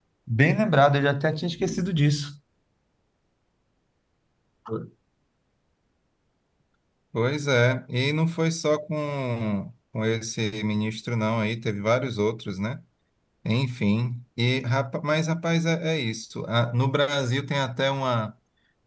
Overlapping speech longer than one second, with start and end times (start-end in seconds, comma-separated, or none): none